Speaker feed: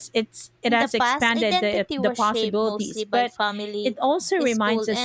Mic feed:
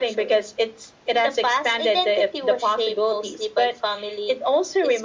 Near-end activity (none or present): none